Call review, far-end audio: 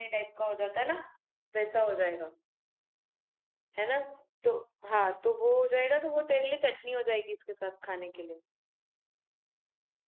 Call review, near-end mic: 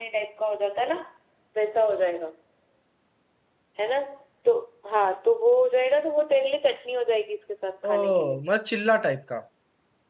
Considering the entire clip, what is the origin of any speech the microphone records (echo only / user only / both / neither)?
both